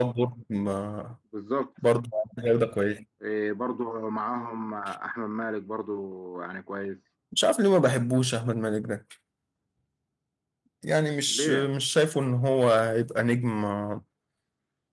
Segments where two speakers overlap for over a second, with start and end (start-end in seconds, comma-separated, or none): none